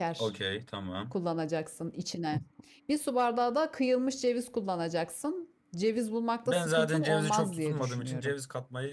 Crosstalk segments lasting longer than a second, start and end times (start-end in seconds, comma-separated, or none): 6.5-8.3